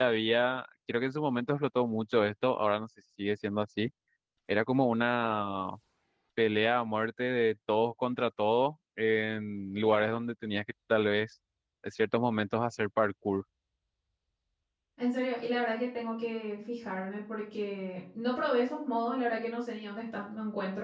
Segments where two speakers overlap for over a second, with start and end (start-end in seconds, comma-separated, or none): none